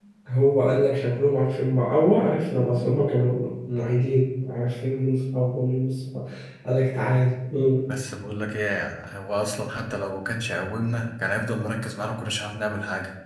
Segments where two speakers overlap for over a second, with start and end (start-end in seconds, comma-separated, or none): none